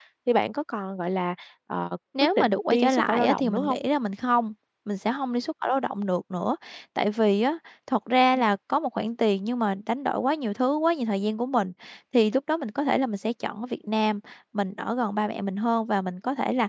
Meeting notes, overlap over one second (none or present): present